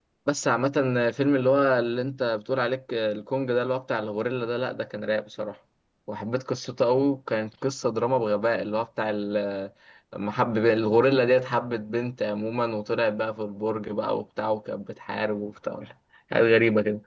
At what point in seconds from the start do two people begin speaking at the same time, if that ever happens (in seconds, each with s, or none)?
none